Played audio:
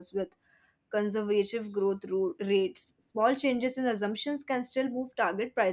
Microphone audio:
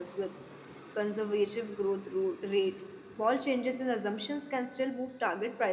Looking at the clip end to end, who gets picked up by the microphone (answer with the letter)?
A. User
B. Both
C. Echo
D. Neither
C